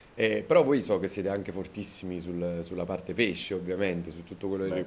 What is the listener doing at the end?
listening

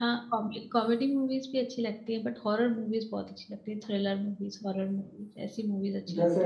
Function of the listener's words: taking over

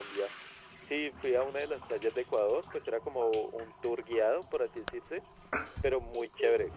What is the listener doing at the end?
listening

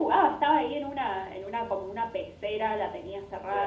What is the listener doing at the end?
listening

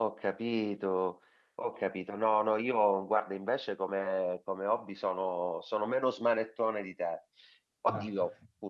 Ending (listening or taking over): listening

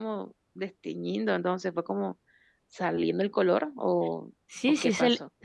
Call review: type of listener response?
taking over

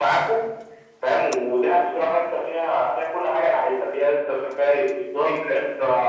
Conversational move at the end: listening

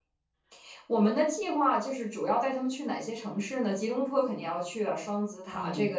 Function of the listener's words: listening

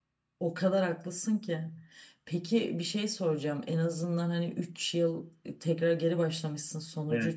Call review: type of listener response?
listening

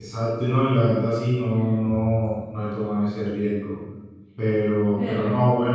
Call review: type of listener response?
listening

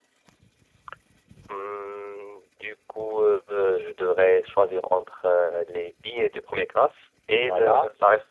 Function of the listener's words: taking over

